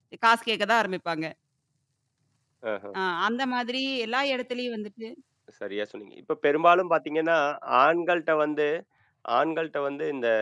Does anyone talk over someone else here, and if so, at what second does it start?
none

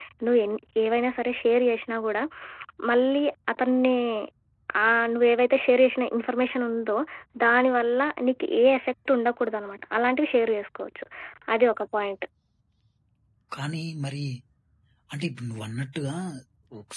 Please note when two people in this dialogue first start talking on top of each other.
none

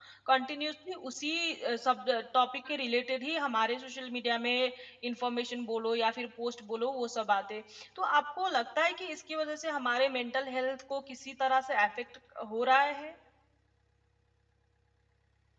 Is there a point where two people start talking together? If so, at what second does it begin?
none

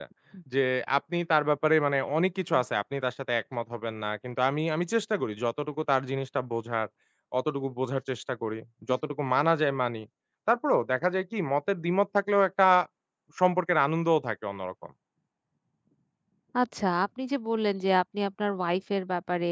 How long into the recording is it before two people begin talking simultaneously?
none

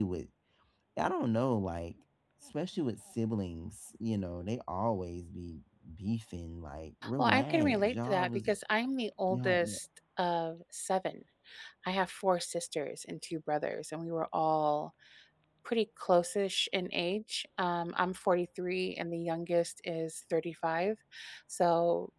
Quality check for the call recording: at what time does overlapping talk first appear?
7.2 s

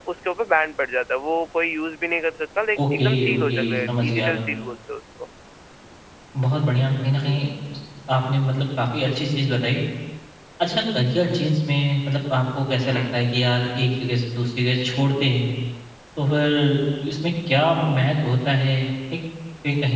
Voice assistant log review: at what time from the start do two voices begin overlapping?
3.0 s

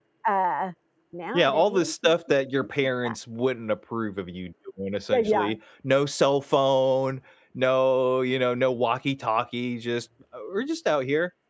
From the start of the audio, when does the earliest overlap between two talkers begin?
1.3 s

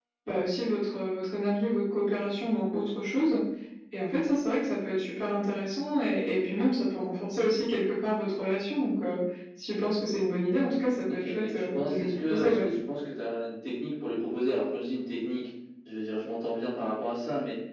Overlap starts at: 11.1 s

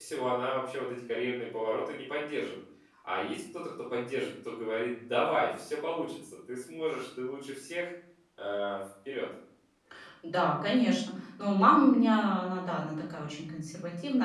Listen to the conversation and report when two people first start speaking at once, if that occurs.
none

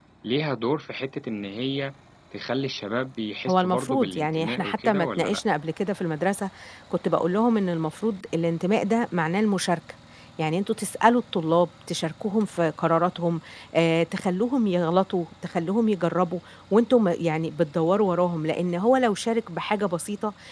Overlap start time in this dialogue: 3.5 s

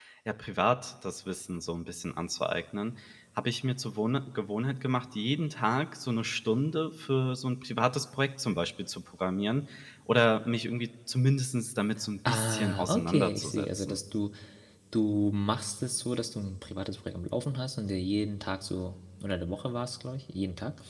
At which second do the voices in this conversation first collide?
12.2 s

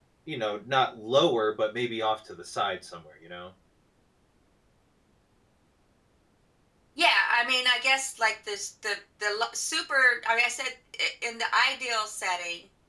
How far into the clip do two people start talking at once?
none

